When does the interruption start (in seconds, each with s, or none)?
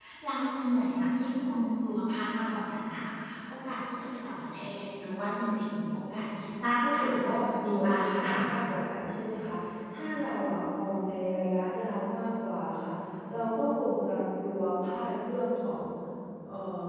6.8 s